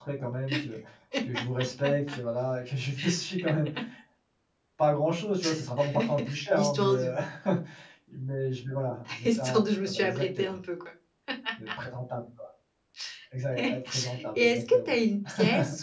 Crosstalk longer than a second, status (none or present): present